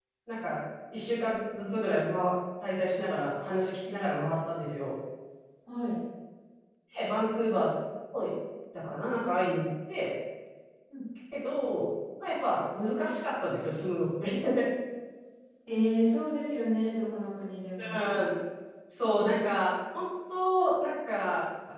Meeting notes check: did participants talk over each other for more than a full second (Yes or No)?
No